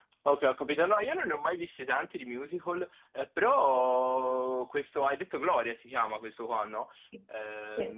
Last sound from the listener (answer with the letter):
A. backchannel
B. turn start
A